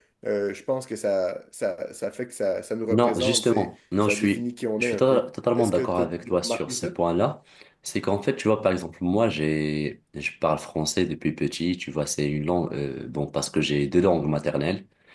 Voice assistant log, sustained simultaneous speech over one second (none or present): present